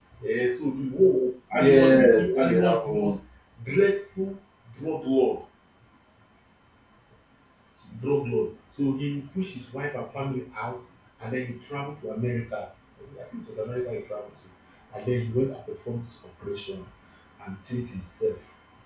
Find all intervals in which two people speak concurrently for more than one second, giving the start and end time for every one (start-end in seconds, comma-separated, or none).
1.5-3.1